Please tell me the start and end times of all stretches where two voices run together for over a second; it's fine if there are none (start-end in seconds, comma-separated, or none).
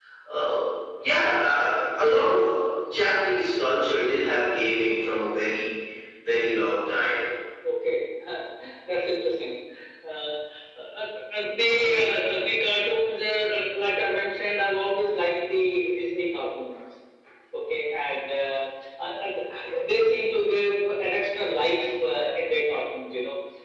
none